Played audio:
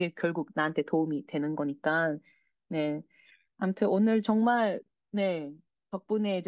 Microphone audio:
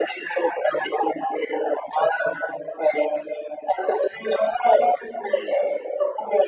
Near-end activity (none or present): none